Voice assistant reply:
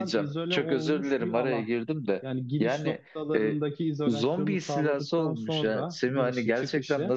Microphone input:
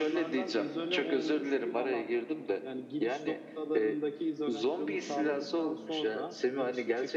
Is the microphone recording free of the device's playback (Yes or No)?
No